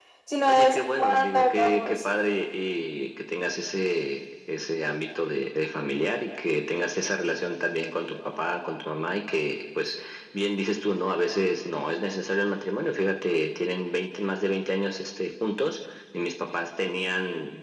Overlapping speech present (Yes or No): Yes